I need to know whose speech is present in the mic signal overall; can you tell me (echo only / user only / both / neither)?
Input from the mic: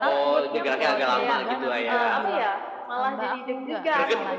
both